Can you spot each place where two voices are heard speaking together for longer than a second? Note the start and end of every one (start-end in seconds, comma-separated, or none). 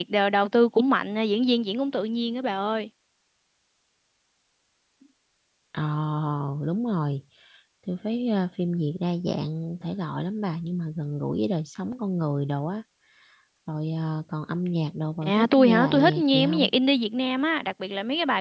15.2-16.7